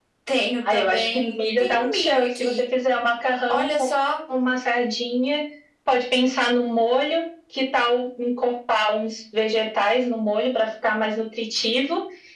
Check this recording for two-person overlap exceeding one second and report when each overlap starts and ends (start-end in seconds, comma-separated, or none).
0.7-2.5